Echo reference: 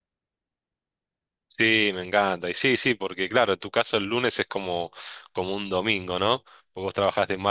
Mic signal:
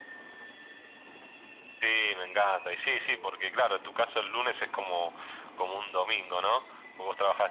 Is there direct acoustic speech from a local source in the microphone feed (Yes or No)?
No